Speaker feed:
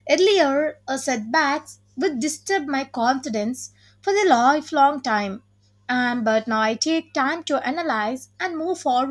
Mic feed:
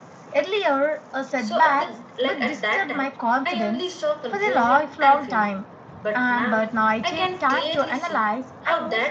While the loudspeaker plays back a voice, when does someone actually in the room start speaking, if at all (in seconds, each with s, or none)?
1.3 s